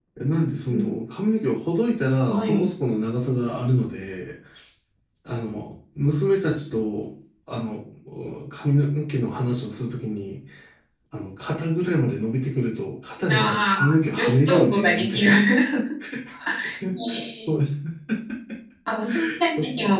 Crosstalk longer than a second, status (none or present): present